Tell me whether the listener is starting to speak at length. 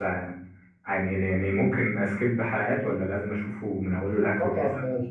Yes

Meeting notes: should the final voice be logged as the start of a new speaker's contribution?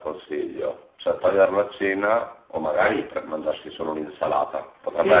Yes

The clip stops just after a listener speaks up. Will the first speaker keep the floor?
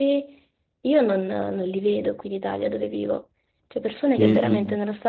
Yes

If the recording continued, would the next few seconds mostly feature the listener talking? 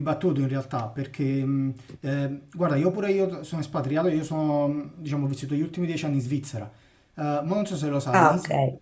No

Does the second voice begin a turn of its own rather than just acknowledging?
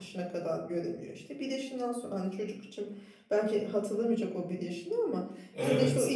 No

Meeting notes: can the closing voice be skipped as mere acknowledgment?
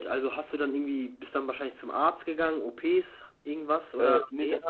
No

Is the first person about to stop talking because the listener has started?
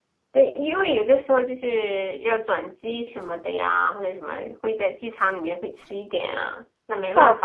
Yes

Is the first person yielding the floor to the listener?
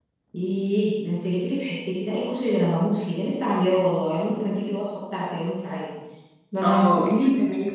Yes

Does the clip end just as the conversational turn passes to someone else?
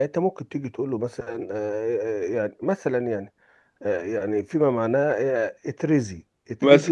No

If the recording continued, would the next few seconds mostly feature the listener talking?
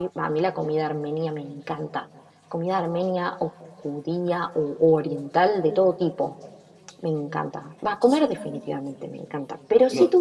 No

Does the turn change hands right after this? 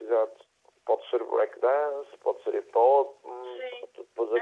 Yes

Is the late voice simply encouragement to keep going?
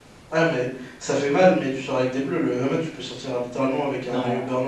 No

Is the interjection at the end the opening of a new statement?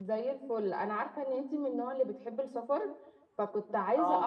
No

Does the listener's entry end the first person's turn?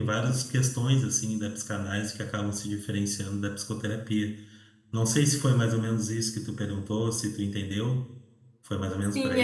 Yes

